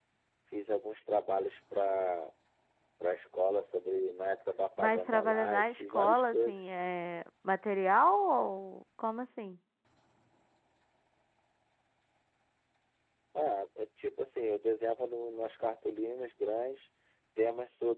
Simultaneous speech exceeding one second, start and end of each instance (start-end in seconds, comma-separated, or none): 4.8-6.5